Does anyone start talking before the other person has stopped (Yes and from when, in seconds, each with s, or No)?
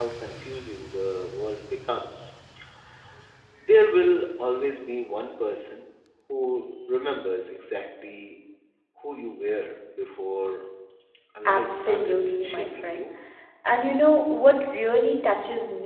Yes, from 11.4 s